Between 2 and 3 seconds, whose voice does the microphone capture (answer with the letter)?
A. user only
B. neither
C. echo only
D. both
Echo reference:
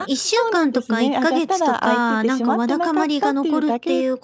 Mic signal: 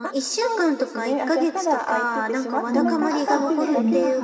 D